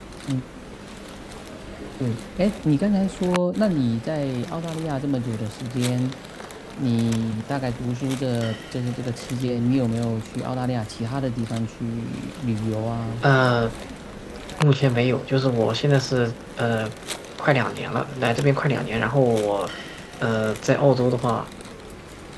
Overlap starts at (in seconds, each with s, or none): none